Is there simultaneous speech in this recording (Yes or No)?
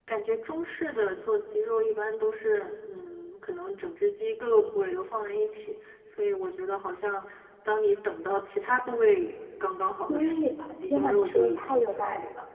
Yes